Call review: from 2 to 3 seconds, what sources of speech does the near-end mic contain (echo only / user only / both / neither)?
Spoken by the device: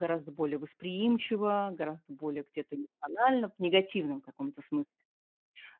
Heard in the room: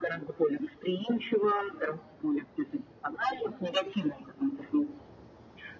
echo only